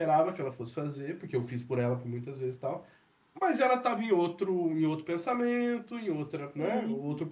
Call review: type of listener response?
listening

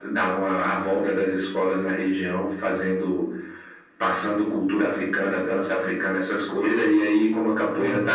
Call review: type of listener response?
listening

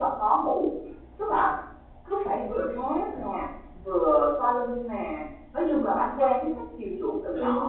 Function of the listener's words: listening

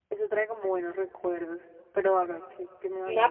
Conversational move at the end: taking over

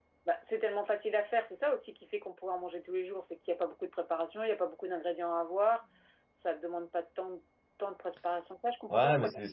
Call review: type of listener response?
taking over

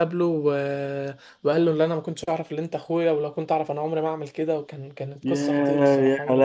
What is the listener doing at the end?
taking over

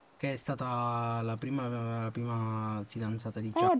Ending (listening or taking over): taking over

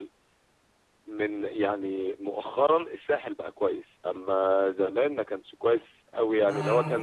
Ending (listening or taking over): taking over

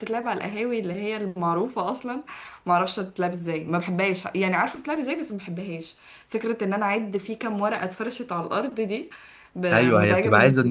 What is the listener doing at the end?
taking over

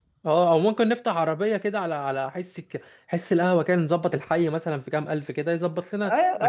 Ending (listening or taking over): taking over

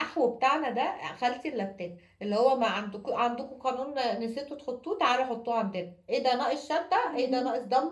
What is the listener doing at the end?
listening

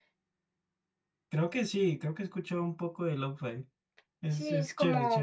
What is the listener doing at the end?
taking over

